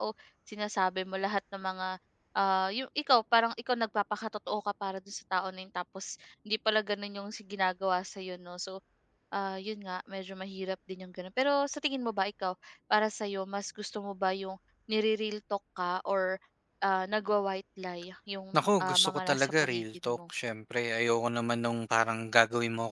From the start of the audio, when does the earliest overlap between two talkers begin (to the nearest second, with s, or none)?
19 s